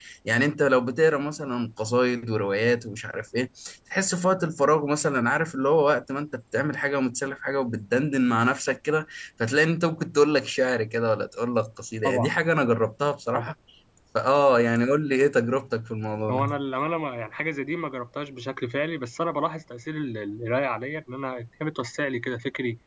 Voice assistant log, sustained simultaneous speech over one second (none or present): none